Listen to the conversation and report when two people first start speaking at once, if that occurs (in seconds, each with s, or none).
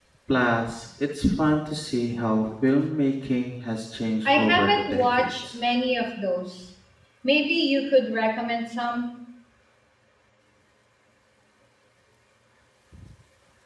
4.2 s